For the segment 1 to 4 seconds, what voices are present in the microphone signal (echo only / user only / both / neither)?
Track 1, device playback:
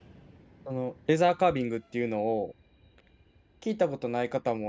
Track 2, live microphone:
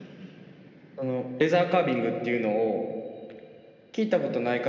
echo only